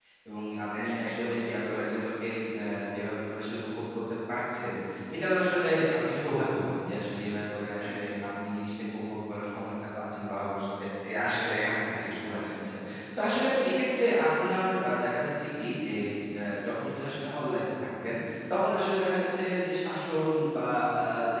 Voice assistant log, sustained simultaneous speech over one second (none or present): present